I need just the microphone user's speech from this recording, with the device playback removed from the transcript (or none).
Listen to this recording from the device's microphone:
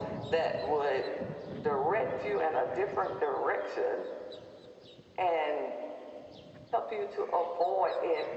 none